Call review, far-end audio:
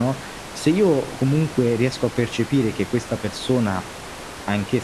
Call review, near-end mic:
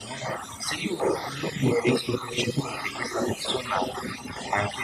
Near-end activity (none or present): none